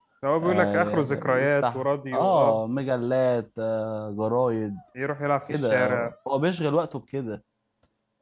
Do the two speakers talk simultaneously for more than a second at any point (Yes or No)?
Yes